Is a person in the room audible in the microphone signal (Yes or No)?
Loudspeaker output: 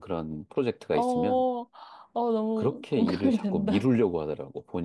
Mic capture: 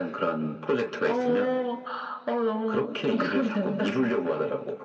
No